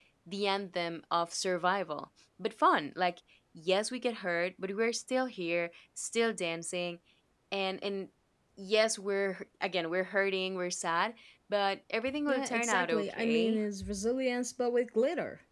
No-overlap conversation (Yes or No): No